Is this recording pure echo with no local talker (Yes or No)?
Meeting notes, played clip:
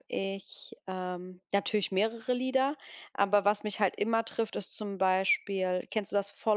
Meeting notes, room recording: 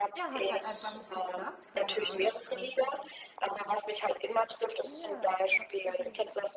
No